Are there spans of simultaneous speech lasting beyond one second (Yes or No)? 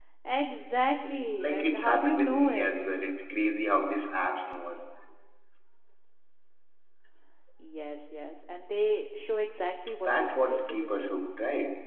Yes